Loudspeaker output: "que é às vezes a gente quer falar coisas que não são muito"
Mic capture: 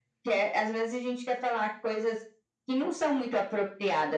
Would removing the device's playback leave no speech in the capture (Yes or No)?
Yes